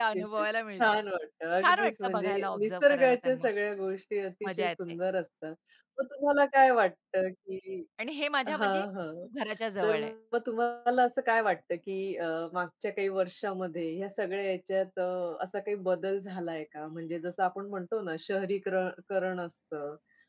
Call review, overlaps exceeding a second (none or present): present